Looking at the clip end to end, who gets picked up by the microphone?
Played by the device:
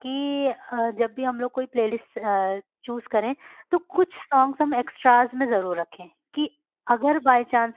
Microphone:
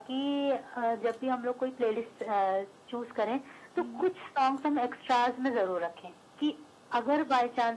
both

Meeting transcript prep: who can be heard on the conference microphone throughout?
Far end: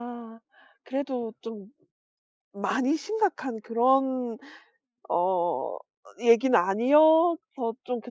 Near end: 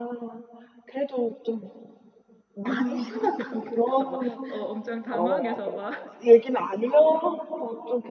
both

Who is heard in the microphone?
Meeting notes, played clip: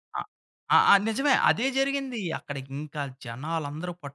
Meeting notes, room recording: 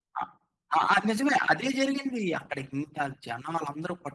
echo only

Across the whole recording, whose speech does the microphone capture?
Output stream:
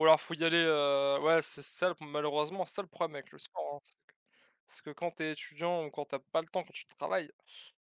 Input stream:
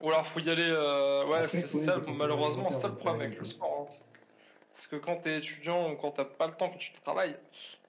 both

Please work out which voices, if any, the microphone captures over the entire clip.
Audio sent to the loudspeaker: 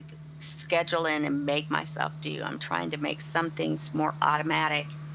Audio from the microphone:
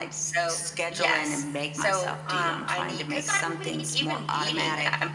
both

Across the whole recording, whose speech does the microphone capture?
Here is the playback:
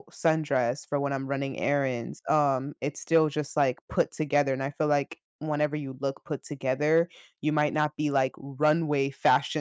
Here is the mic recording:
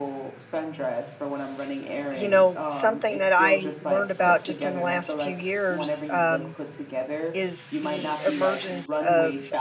both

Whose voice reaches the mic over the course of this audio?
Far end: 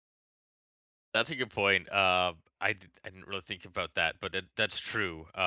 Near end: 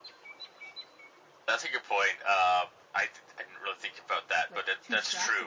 both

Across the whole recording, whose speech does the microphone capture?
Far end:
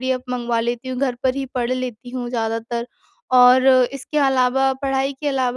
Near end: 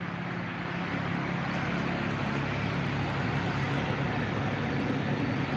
neither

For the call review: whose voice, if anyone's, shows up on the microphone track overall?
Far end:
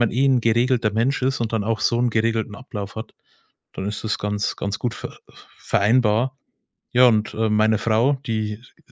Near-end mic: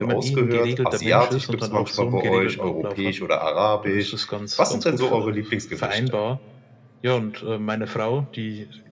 both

